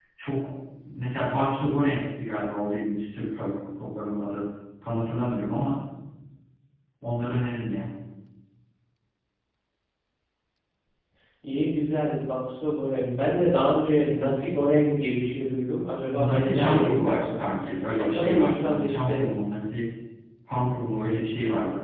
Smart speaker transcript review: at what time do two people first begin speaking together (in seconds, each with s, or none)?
16.1 s